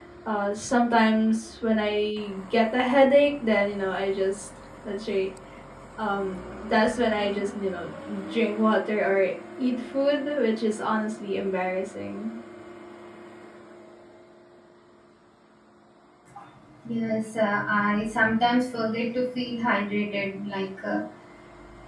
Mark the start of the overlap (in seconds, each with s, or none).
none